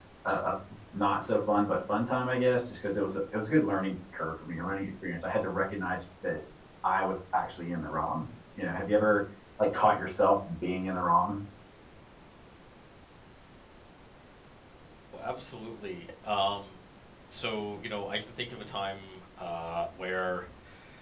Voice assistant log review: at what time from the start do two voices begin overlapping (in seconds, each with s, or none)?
none